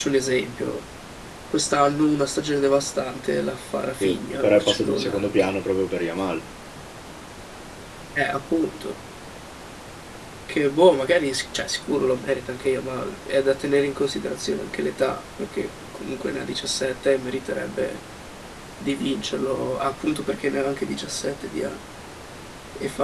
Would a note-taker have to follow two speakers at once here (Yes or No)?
Yes